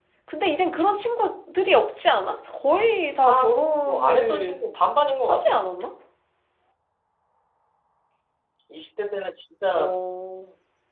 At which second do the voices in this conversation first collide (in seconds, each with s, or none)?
3.2 s